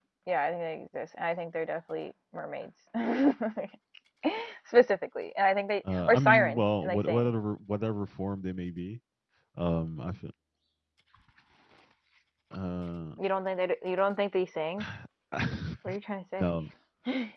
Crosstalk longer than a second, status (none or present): present